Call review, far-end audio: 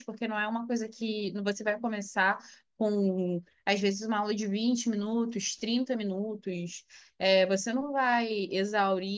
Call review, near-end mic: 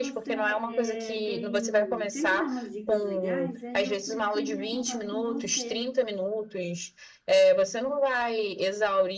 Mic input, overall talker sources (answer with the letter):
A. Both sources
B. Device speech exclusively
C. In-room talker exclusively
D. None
A